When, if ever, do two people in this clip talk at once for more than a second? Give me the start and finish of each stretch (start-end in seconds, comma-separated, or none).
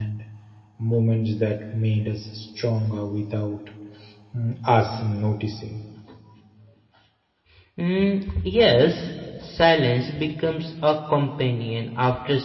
none